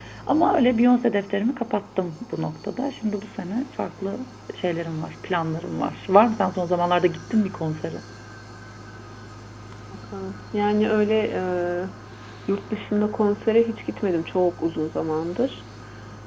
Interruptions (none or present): none